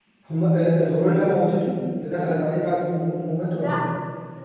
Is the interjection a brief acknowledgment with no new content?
No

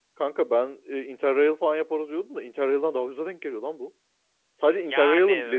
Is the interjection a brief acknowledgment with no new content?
Yes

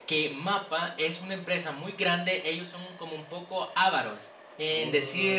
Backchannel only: Yes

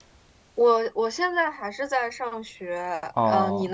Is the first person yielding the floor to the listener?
Yes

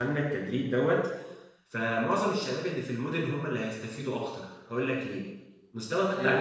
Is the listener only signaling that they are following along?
Yes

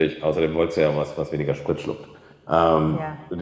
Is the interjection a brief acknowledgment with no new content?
Yes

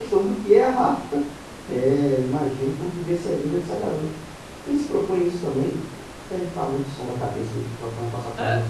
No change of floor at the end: No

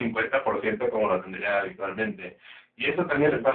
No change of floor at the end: Yes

